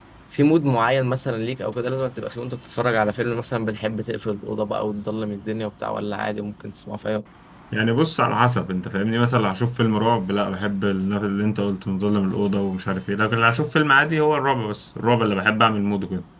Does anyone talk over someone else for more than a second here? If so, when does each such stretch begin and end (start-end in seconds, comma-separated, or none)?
none